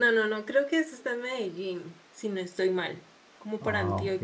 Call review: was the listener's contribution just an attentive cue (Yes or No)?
Yes